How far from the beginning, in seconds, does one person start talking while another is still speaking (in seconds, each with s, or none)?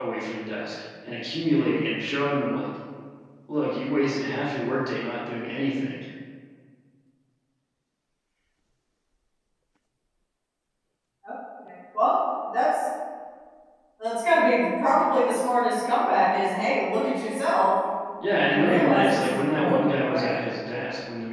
18.5 s